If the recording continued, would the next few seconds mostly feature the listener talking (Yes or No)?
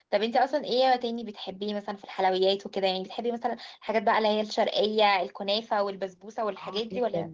Yes